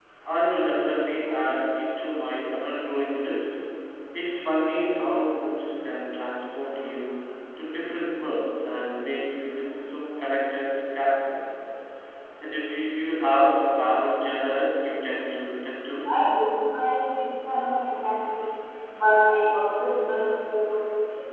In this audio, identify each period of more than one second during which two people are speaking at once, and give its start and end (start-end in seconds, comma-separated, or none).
none